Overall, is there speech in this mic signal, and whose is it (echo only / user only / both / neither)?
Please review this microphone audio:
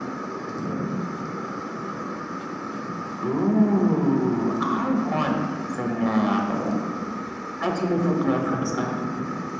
echo only